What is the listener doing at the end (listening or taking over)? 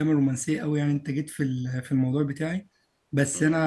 listening